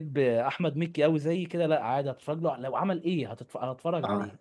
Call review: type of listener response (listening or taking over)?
taking over